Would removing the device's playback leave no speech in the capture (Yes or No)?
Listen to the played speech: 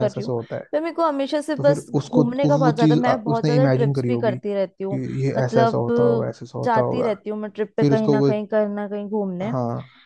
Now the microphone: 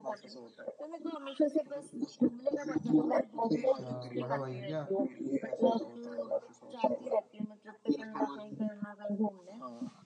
No